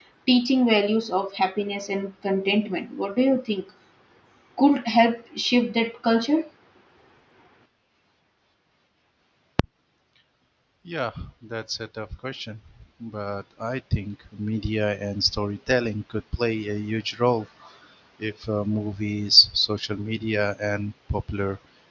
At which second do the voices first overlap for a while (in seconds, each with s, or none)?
none